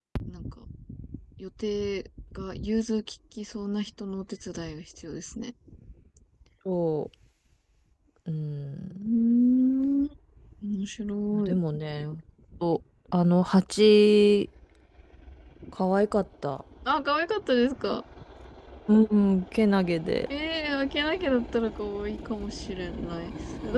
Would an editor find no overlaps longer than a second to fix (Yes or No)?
Yes